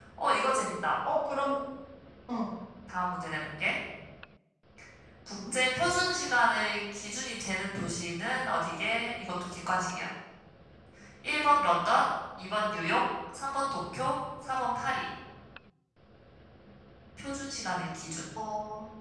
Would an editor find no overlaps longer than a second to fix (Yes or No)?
Yes